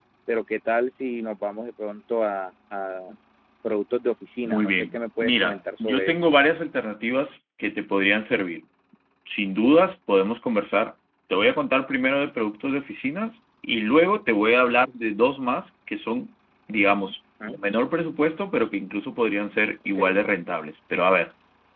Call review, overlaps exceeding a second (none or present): present